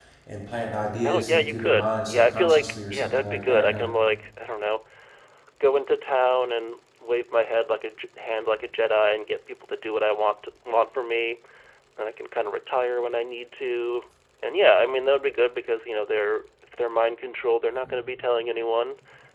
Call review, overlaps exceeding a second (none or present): present